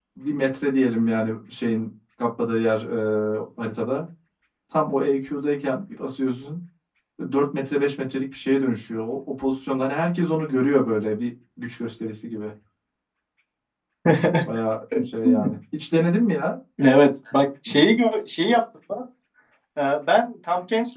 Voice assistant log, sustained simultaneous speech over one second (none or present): none